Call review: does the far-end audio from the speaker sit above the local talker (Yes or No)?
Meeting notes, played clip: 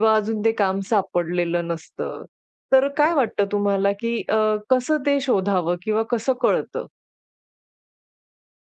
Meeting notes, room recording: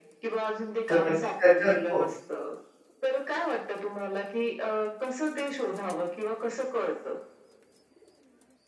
No